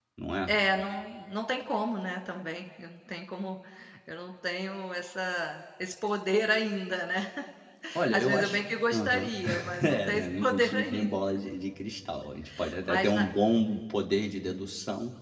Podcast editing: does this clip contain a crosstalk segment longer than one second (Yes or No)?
Yes